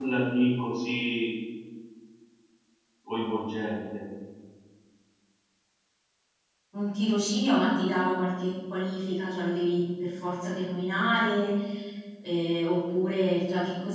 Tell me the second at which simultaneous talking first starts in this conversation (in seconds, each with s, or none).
none